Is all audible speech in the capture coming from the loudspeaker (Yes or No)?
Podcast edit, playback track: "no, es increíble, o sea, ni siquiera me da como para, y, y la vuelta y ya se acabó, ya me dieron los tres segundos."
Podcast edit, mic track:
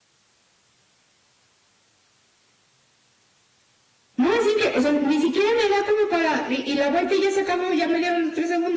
Yes